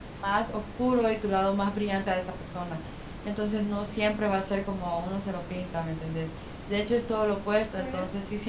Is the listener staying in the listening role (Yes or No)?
Yes